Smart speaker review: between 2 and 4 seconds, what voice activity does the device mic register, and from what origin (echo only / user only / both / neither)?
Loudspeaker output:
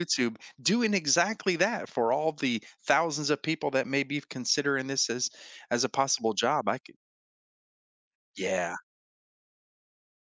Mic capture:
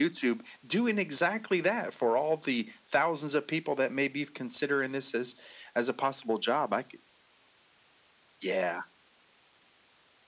echo only